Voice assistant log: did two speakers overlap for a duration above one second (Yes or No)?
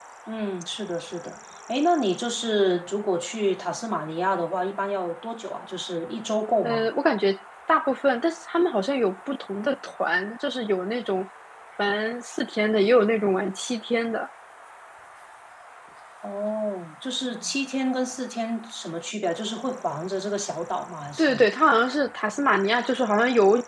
No